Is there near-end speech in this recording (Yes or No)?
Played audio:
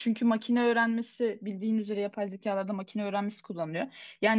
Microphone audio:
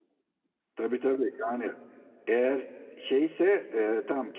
Yes